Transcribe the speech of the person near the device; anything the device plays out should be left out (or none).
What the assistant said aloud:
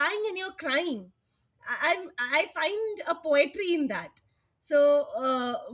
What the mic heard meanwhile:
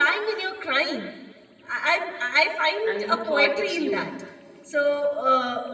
and you thought it's you.